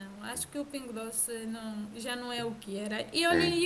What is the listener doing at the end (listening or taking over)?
listening